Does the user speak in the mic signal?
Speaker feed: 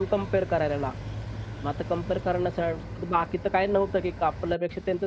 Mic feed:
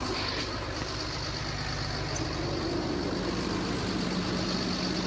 No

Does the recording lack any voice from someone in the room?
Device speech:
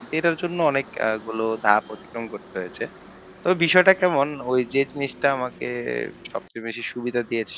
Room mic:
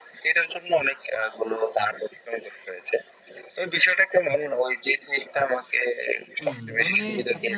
No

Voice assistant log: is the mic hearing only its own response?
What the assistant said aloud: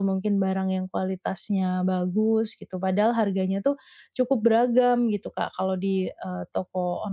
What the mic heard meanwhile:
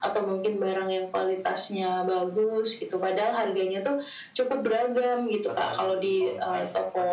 No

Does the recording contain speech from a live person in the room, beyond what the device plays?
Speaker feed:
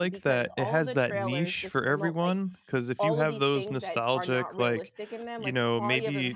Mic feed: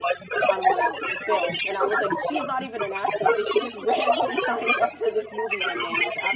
Yes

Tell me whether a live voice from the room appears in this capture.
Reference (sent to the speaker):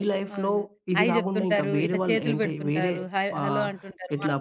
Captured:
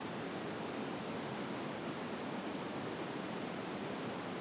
No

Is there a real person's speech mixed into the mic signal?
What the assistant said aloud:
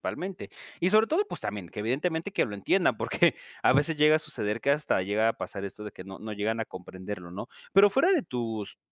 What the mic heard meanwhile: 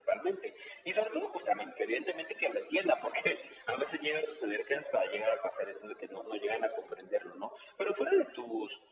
No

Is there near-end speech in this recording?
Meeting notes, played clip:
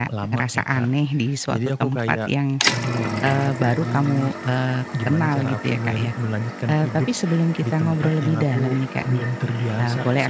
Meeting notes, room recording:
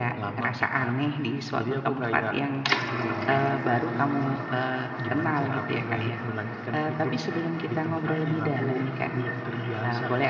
No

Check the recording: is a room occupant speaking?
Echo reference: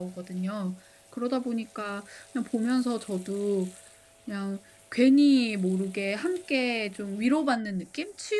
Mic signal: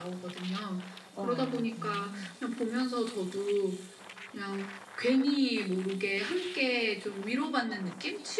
Yes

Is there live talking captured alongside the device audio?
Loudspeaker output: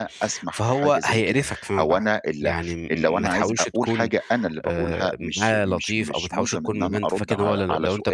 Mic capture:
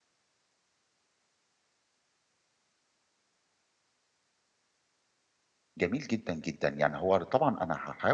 Yes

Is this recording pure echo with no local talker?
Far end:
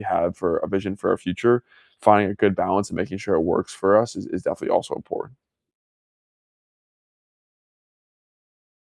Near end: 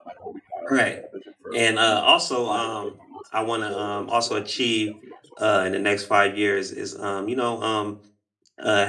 No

